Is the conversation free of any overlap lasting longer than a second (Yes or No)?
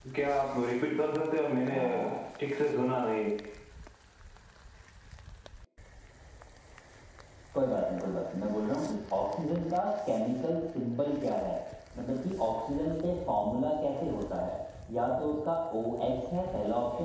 Yes